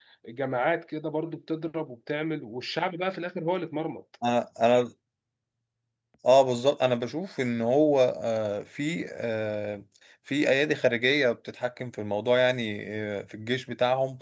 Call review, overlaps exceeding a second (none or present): none